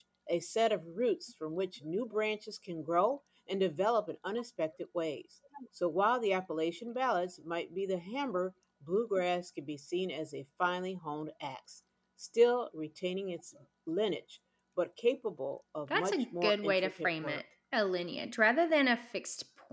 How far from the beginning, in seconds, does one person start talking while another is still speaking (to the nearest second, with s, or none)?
16 s